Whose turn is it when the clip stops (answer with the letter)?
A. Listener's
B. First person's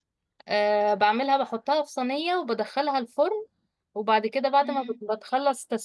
B